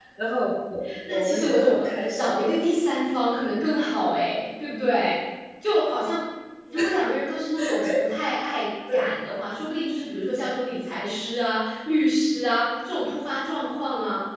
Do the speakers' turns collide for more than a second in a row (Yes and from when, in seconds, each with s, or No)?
Yes, from 1.1 s